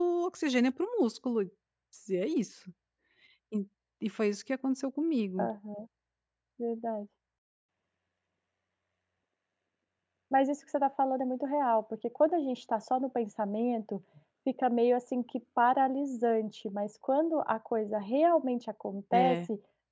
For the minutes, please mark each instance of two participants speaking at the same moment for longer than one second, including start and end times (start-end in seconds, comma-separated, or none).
none